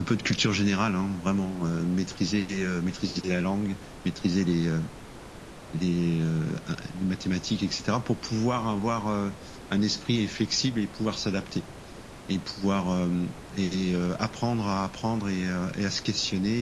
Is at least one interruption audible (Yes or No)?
No